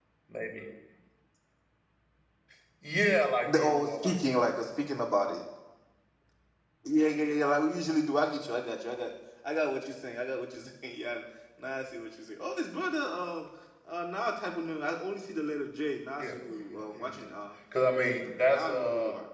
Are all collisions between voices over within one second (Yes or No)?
No